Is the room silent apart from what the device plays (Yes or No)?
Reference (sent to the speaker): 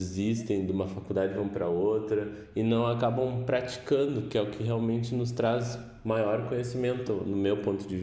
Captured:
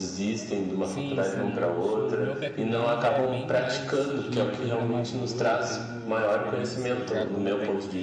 No